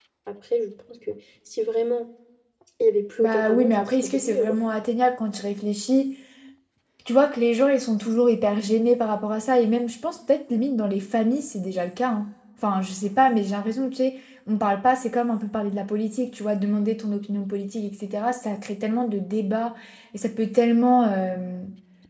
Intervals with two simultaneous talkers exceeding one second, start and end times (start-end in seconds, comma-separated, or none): 3.2-4.6